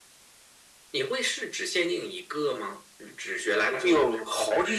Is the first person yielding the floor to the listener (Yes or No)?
Yes